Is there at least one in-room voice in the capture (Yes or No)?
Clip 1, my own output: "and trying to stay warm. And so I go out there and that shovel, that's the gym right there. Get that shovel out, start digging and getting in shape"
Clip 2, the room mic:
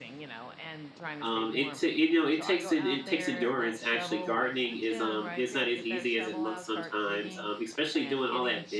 Yes